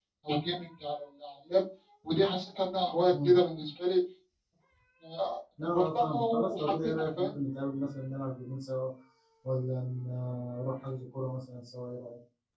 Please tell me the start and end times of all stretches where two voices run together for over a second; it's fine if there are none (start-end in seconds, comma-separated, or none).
5.6-7.3